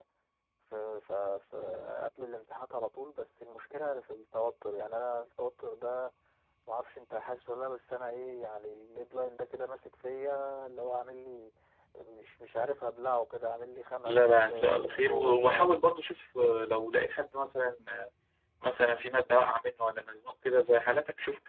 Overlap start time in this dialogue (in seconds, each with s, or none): 14.1 s